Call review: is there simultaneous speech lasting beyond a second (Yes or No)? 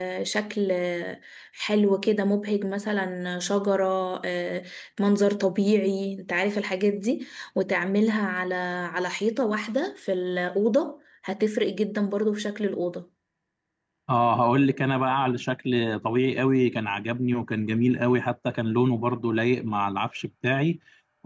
No